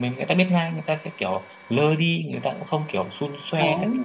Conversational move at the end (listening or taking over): taking over